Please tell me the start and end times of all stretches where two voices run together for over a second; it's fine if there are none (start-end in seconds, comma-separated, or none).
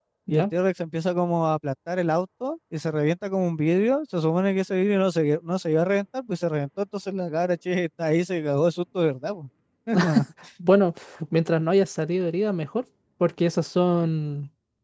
none